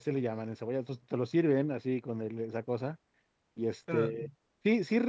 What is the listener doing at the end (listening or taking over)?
listening